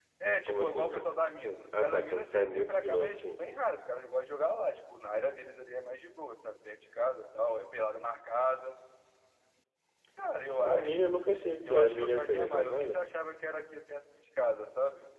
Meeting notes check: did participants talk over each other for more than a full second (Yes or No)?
Yes